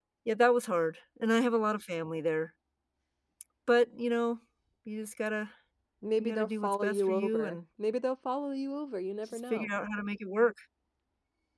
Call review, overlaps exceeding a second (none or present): present